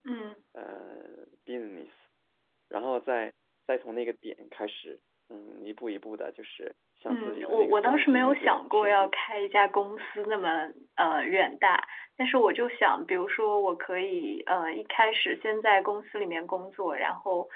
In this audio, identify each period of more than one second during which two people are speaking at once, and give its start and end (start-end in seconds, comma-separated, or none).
7.1-9.1